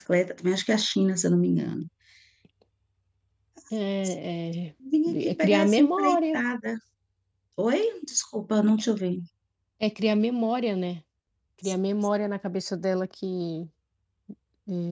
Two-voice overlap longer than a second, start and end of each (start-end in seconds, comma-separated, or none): 5.1-6.4